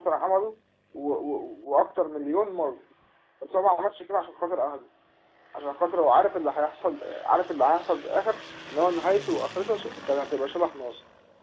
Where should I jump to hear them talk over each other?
none

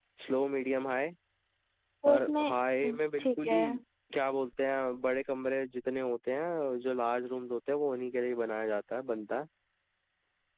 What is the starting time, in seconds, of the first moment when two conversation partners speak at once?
2.1 s

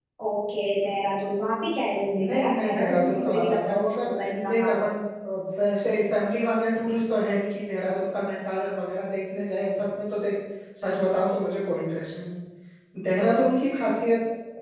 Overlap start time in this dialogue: 2.2 s

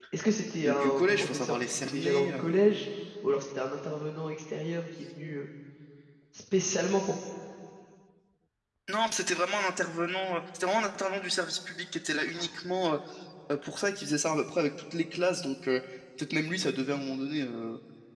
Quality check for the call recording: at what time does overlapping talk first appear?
0.6 s

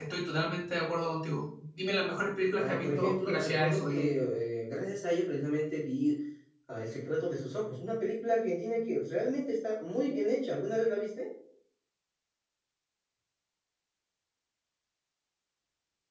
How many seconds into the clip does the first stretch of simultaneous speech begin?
2.6 s

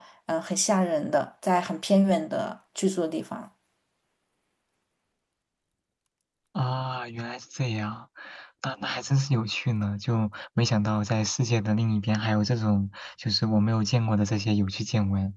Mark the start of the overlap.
none

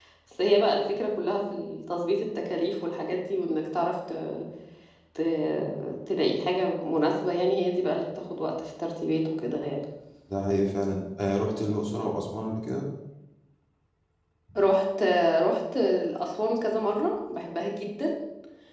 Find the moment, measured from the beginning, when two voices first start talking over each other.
none

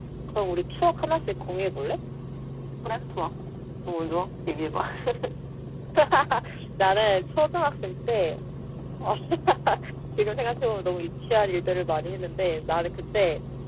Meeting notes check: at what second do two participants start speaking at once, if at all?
none

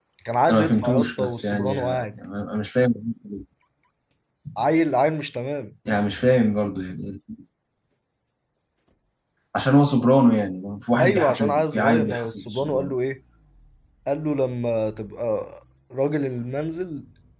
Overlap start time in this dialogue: 0.5 s

